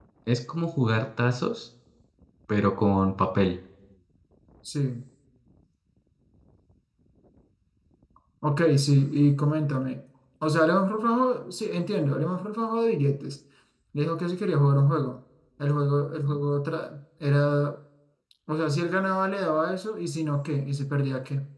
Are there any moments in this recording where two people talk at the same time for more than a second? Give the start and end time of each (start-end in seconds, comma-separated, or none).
none